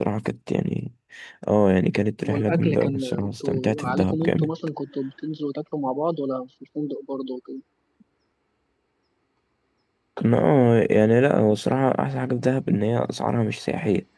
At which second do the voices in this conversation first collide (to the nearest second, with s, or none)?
2 s